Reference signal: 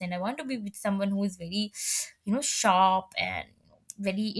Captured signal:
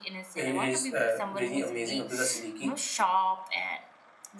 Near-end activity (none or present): present